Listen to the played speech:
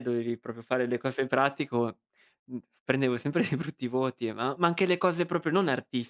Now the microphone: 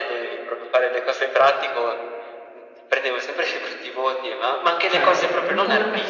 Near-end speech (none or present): present